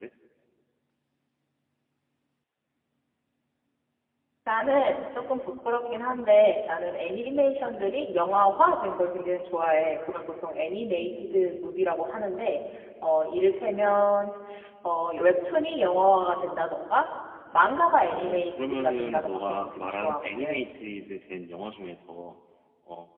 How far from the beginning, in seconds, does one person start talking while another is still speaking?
18.0 s

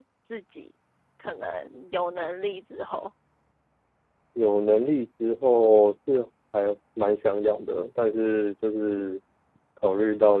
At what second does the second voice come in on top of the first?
none

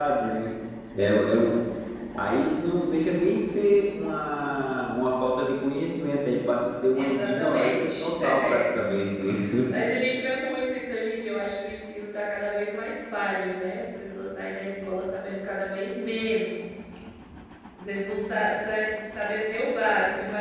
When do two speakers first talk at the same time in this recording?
6.9 s

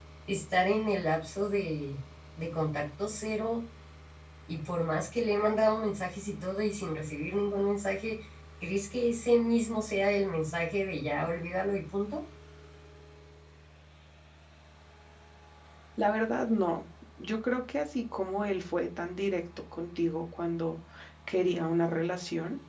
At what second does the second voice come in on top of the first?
none

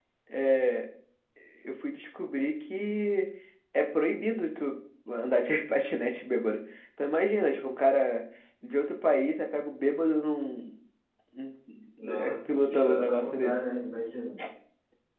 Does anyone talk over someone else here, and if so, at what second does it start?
12.2 s

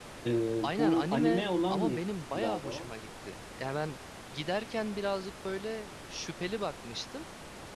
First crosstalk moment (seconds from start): 0.6 s

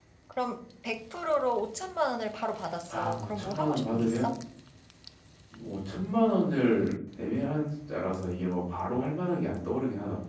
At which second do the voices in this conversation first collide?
2.9 s

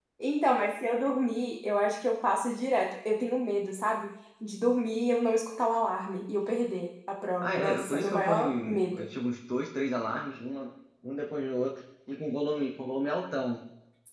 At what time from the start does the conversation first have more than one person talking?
7.4 s

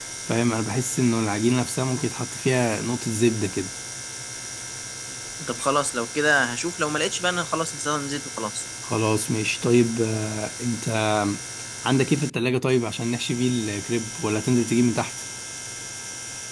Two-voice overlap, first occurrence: none

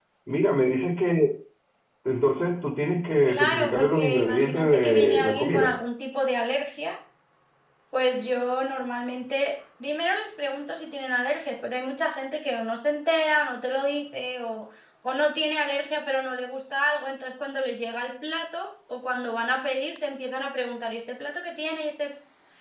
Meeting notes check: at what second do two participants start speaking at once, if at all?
3.3 s

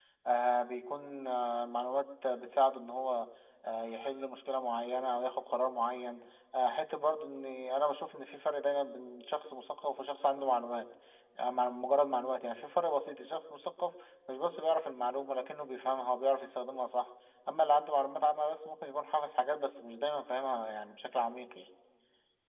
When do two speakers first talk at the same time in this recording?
none

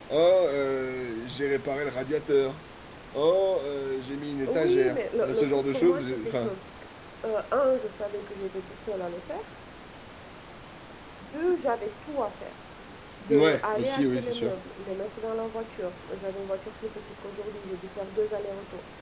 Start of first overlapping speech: 4.5 s

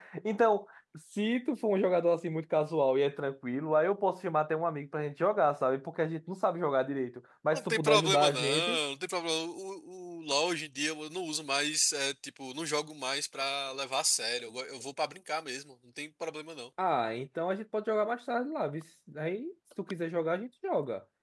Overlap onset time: 7.5 s

